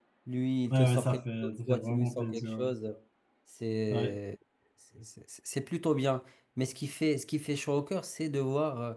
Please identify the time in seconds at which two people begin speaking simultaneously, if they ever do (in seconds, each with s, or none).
0.7 s